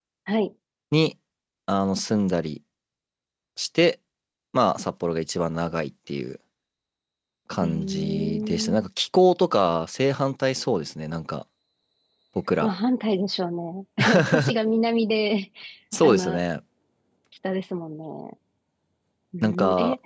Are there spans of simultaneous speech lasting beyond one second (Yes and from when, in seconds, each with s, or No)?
Yes, from 7.6 s